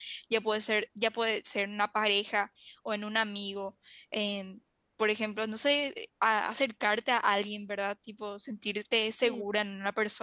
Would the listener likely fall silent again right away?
Yes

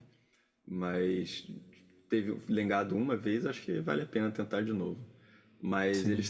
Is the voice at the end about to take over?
No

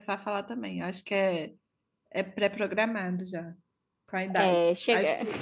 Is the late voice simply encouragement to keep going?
Yes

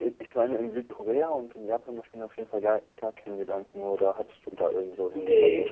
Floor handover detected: Yes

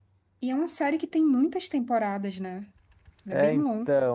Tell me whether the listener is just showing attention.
No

